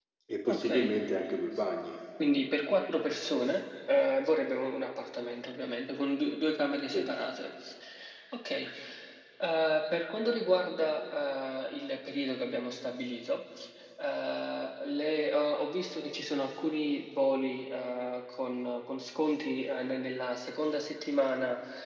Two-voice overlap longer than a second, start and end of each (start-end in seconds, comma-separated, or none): none